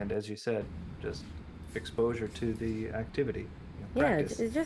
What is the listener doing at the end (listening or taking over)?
taking over